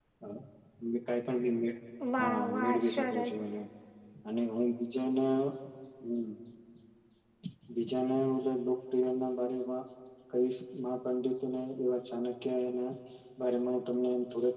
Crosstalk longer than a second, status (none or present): present